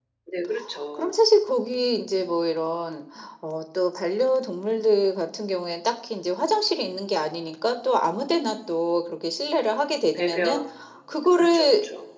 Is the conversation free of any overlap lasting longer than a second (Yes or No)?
Yes